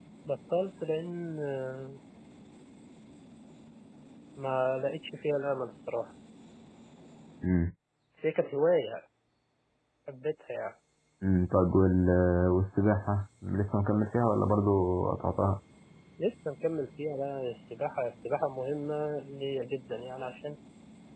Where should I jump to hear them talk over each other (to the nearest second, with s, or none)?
none